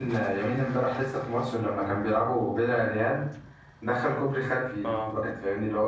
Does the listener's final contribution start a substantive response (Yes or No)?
No